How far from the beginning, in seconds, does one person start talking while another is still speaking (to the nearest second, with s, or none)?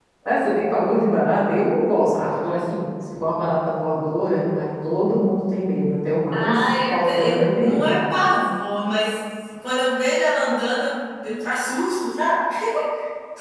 6 s